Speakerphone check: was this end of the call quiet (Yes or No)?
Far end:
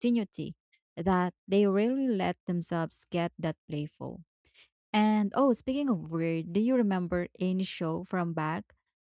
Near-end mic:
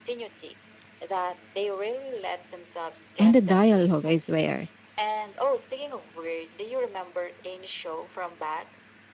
No